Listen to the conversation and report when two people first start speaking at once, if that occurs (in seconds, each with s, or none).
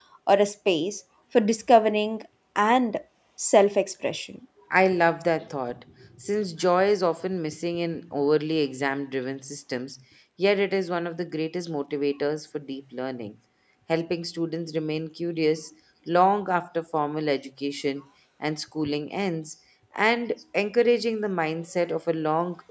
none